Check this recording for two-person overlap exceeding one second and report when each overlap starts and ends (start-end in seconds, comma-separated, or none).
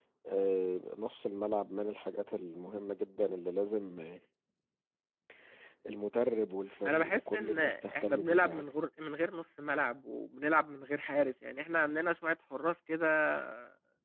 6.9-8.7